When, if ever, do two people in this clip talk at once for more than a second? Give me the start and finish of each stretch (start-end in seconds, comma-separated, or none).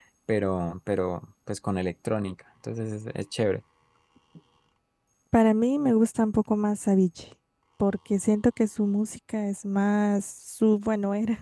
none